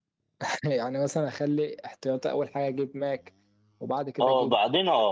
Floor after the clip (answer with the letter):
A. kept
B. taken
B